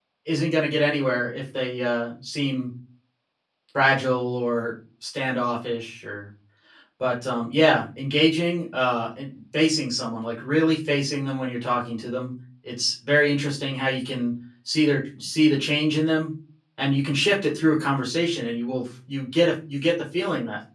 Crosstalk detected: No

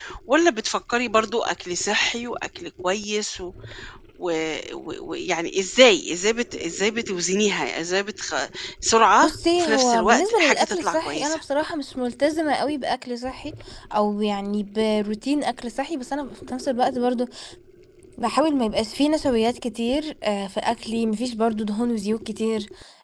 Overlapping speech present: Yes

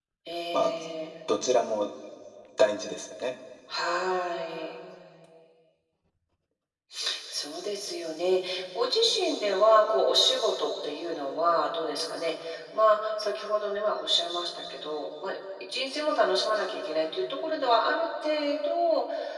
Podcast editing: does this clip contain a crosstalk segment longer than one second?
No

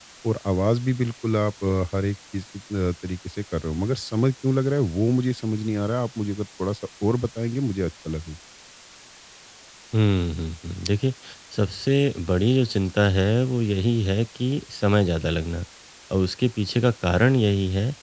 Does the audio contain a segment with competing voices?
No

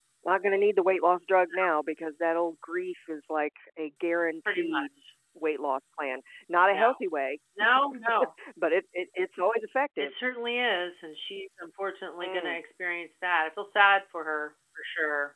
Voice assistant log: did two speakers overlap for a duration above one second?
No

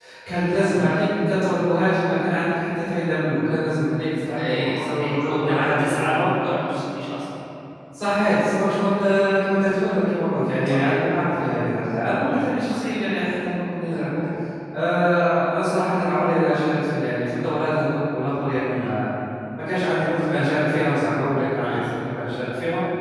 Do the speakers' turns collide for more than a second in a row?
Yes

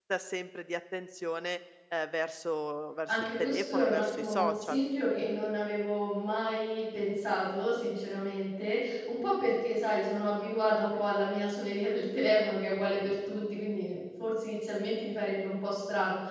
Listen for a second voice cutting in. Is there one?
Yes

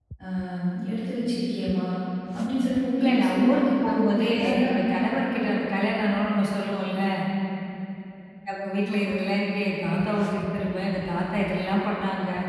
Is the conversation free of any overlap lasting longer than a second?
No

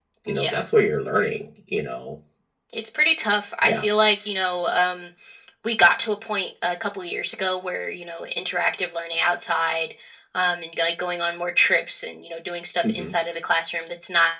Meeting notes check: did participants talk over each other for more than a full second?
No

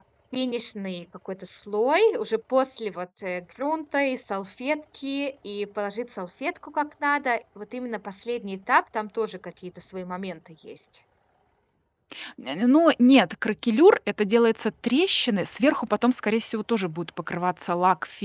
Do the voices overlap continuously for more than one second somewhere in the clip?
No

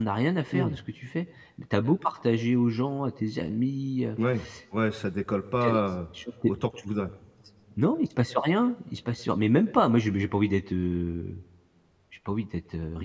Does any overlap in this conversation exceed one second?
No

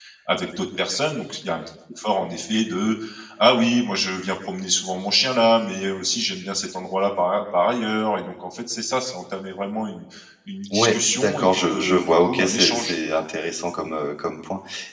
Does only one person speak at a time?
No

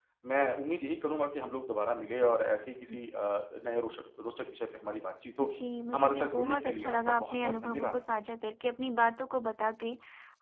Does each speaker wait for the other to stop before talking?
No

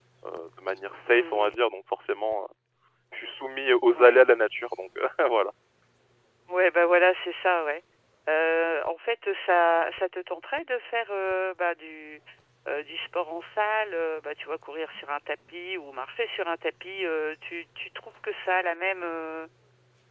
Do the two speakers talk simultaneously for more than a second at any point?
No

